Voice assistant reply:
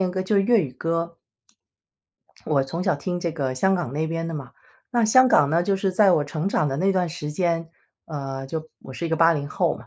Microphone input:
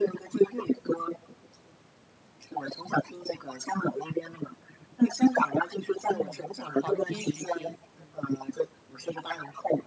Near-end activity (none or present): present